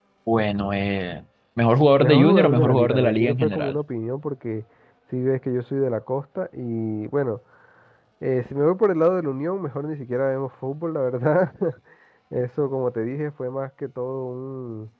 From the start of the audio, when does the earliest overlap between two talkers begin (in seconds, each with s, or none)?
2.0 s